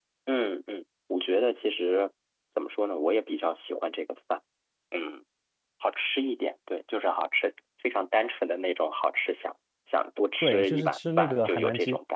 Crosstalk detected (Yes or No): Yes